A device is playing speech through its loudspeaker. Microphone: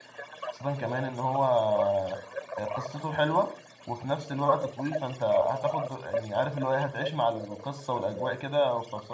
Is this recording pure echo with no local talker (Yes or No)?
No